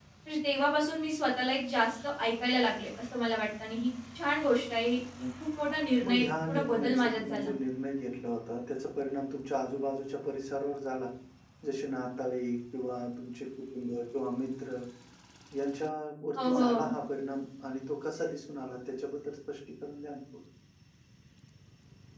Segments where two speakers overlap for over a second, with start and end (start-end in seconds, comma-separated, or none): 6.0-7.5